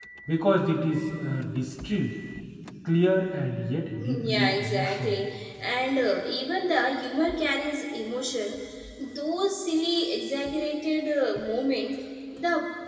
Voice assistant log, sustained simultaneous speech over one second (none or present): present